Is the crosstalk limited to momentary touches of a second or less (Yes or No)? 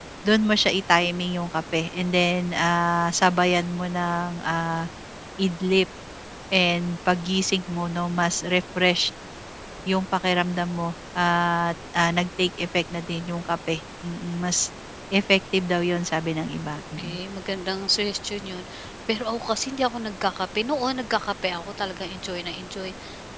Yes